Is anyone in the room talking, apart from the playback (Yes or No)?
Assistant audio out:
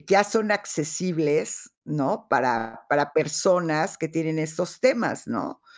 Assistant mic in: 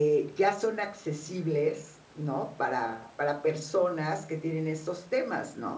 No